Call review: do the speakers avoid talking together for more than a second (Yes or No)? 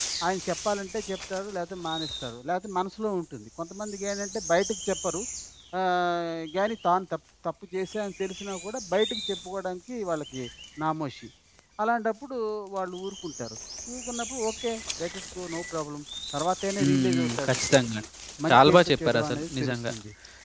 No